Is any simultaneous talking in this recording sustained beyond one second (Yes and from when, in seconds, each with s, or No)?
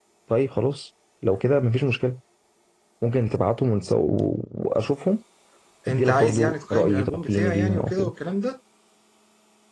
Yes, from 5.9 s